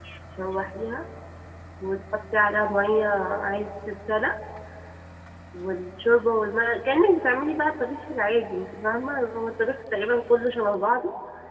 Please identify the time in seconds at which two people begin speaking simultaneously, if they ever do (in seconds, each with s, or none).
none